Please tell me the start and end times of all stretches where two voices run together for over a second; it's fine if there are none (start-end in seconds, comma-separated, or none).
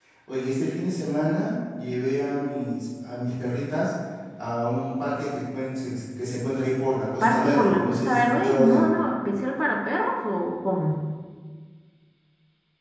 7.2-8.9